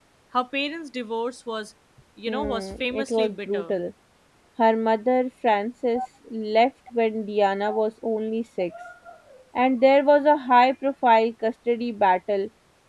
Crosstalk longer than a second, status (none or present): present